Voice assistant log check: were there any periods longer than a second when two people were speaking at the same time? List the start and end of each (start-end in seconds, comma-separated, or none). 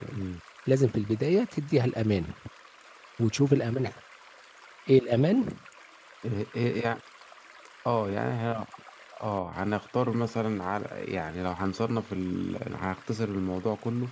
none